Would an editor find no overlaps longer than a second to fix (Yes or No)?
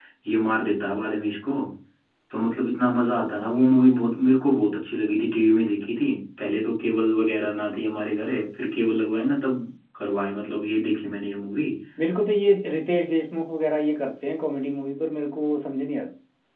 Yes